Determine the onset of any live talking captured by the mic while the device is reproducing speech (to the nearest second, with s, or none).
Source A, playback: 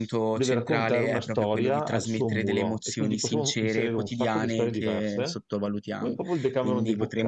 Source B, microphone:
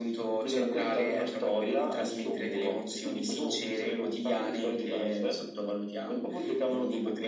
none